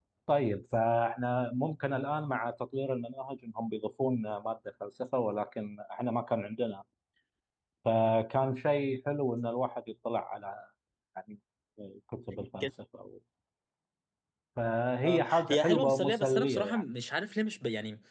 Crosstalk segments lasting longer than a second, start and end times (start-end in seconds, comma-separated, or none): 15.0-16.8